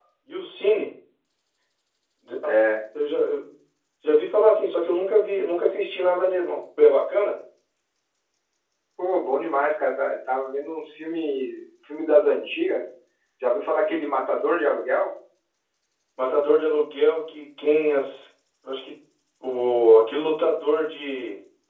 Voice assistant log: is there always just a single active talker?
Yes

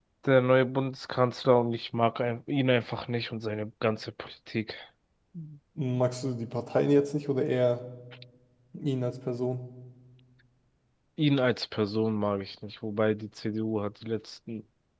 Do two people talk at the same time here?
No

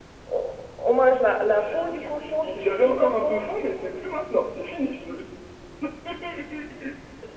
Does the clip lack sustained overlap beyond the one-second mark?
No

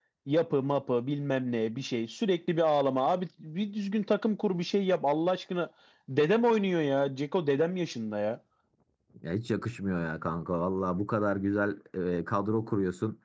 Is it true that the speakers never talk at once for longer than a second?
Yes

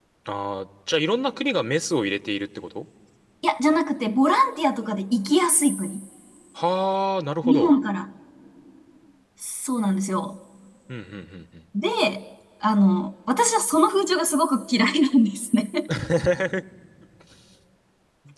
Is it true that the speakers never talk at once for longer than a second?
Yes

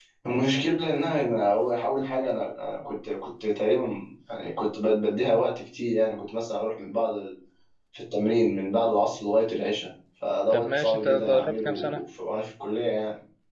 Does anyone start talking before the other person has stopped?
Yes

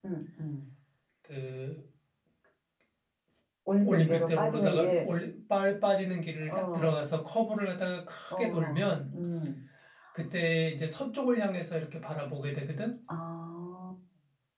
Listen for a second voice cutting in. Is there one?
Yes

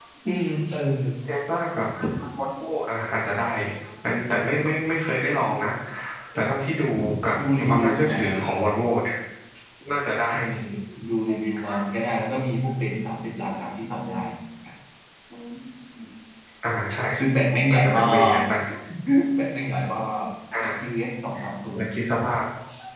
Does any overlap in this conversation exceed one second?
Yes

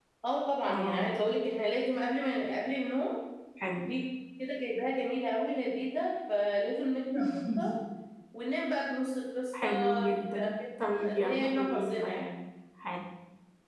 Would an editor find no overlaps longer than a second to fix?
No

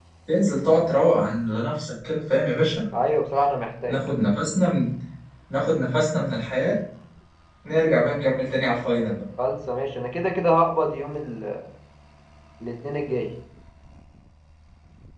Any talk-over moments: No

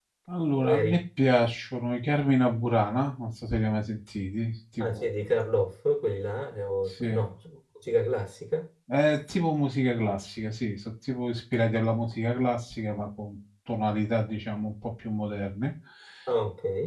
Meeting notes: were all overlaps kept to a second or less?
Yes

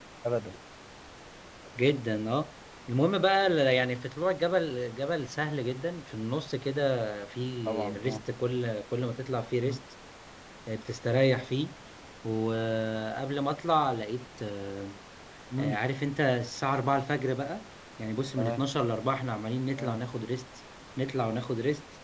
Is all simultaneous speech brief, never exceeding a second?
Yes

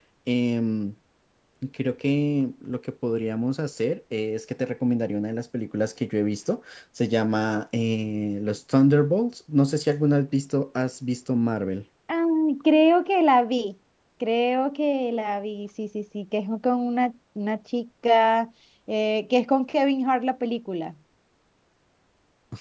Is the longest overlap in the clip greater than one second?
No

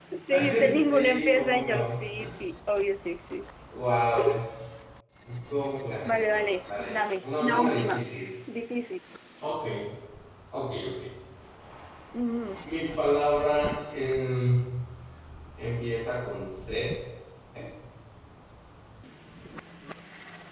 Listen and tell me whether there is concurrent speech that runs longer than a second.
Yes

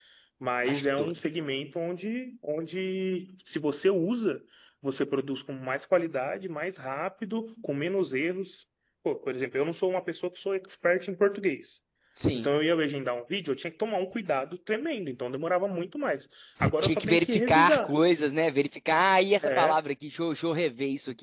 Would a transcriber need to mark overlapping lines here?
Yes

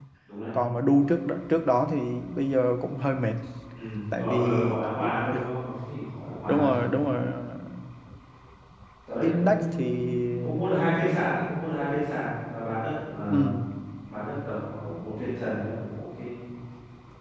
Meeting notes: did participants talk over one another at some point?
Yes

